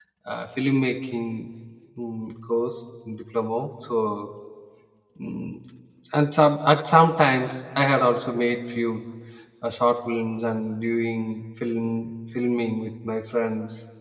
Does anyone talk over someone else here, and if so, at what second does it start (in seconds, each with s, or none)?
none